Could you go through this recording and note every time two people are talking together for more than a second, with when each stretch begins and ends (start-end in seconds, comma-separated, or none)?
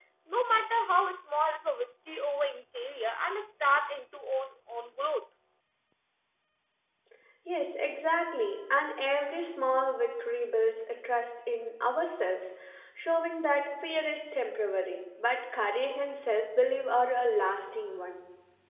none